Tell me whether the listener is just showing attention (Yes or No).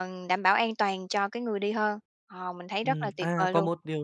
No